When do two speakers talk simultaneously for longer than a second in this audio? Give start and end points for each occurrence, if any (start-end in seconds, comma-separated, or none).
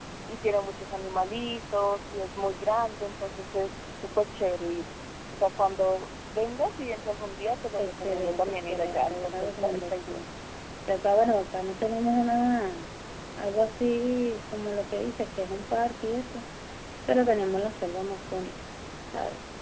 7.8-10.3